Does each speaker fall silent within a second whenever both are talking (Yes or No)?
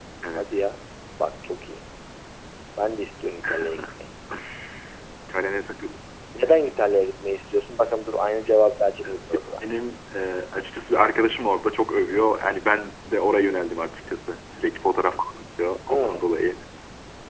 Yes